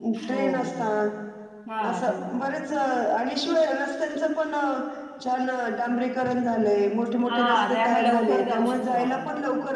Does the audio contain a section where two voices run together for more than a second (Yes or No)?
Yes